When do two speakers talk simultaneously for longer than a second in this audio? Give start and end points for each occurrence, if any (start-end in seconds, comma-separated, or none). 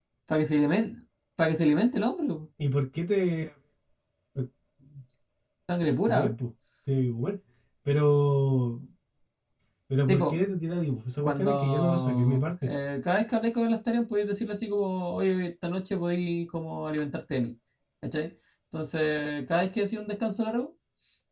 11.2-12.5